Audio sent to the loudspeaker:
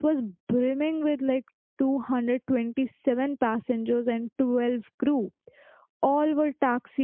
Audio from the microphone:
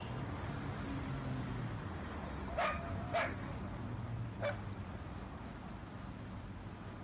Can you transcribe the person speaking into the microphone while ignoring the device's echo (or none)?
none